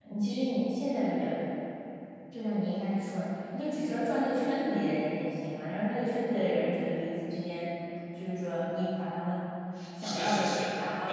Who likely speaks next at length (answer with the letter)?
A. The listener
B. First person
A